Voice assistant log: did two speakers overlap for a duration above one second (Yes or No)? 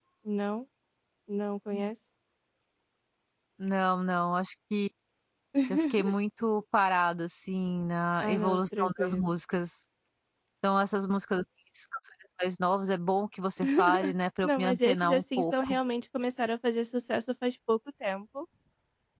Yes